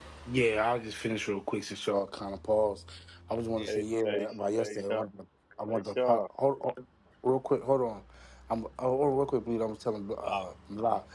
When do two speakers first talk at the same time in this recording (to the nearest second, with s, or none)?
4 s